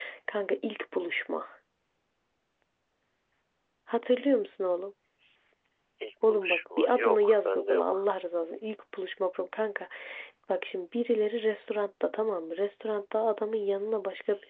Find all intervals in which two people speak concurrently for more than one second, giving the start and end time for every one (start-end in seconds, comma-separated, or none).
6.3-7.8